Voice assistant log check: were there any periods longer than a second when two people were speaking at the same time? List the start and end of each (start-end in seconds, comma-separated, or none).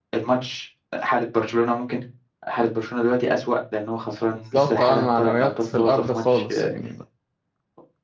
4.5-6.7